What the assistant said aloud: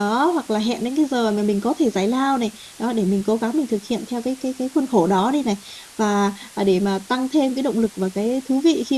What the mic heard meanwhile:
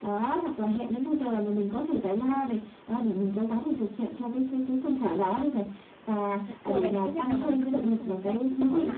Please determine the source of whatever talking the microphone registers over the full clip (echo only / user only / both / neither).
both